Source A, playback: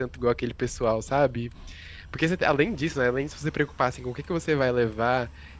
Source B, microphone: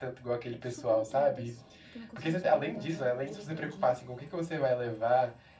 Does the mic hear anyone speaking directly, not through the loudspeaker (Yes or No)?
Yes